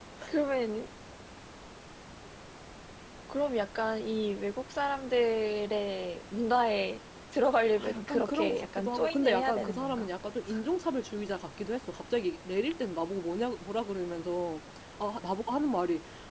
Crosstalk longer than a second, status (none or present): present